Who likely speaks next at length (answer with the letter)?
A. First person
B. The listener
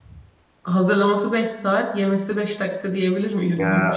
B